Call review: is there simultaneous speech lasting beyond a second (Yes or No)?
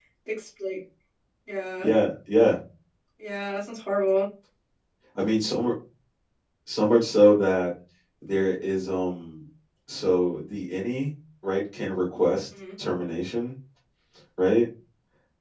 No